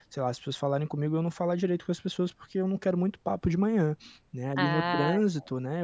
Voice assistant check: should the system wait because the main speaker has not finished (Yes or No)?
Yes